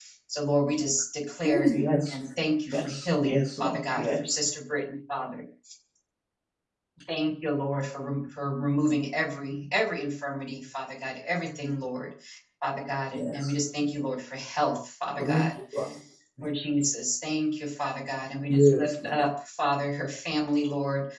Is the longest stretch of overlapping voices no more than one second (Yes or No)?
No